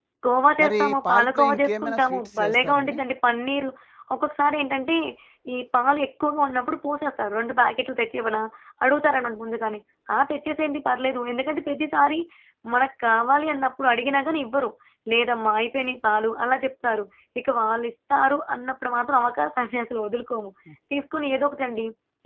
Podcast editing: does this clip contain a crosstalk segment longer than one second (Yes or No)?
Yes